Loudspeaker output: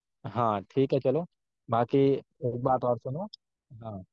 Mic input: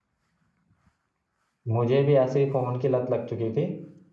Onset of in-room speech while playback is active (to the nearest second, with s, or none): 2 s